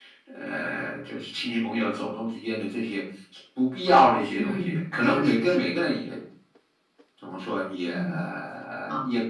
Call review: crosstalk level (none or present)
present